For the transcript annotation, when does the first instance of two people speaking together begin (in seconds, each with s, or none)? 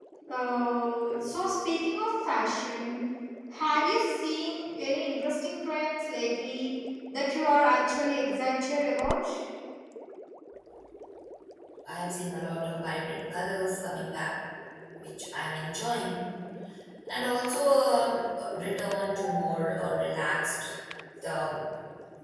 none